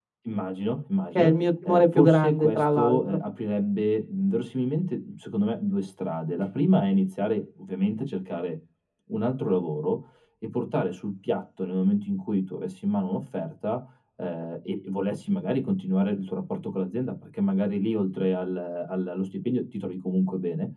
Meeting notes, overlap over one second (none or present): present